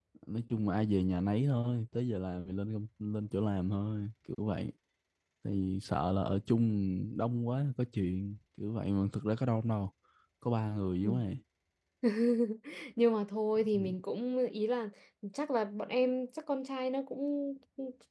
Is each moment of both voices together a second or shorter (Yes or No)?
Yes